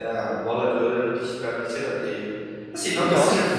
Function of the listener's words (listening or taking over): listening